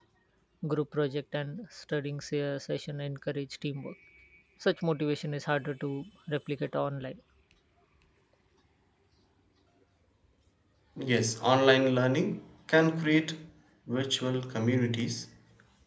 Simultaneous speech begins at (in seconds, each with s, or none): none